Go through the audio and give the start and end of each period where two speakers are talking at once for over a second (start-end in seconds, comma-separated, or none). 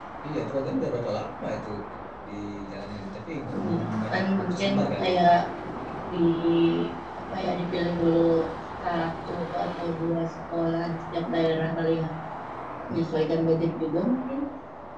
3.5-5.2